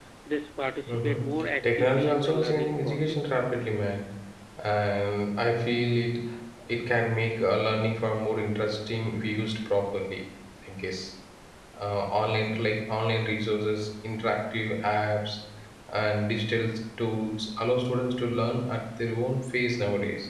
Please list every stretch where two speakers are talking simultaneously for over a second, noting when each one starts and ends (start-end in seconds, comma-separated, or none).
0.9-3.3